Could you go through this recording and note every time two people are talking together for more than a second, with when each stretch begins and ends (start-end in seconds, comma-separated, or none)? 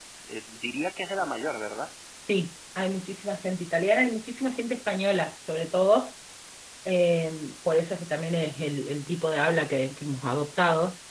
none